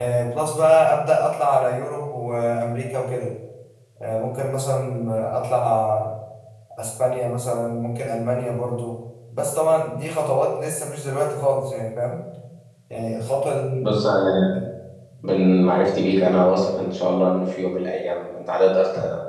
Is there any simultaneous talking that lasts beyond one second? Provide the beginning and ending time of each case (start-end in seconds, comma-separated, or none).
none